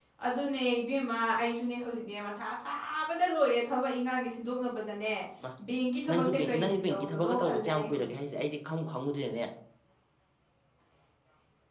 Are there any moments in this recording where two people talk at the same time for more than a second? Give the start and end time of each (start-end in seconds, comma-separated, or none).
6.1-8.1